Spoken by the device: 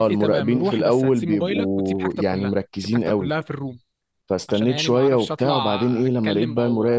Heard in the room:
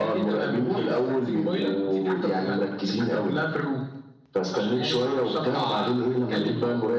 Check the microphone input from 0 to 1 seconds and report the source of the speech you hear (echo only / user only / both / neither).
echo only